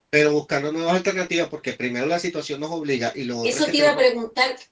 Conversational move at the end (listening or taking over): taking over